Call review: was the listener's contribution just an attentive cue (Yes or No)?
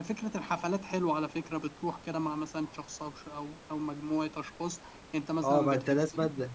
No